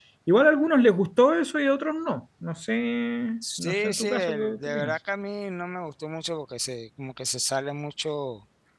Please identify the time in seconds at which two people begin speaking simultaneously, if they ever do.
3.6 s

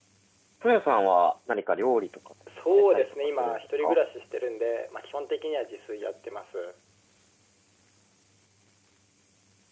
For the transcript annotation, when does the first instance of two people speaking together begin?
2.5 s

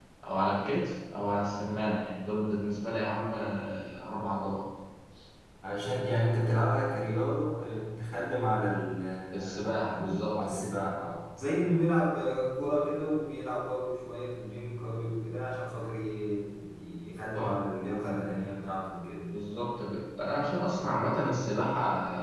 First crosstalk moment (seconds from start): 9.3 s

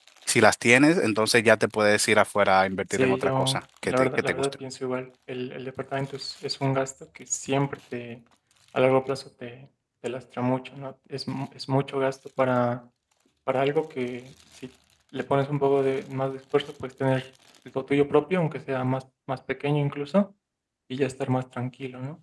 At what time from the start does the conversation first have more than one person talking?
2.8 s

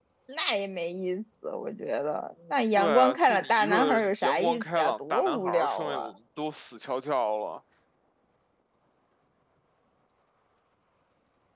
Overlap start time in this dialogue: 2.8 s

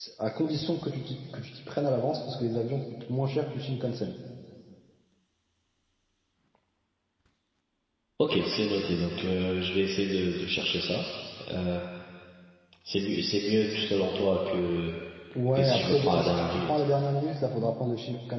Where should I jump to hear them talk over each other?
15.3 s

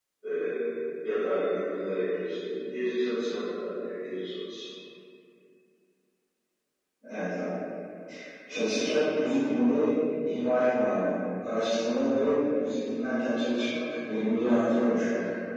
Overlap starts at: none

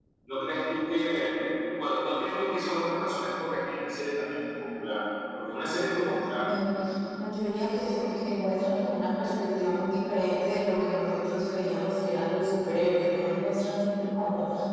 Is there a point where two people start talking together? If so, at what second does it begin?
none

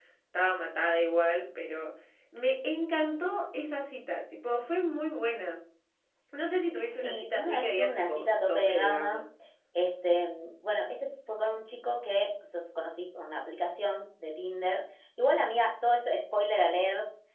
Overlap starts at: 6.9 s

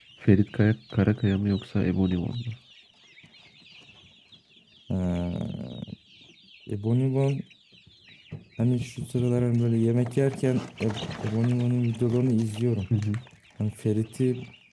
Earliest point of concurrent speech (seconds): none

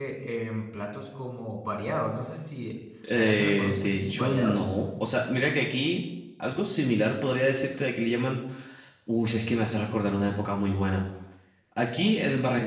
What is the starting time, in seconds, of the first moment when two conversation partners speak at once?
3.1 s

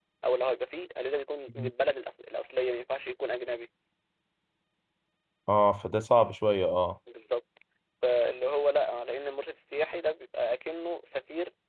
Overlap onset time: none

